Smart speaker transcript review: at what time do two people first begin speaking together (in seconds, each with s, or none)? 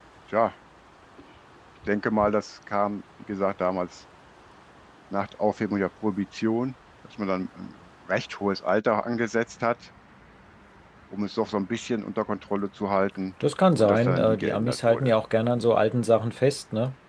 13.8 s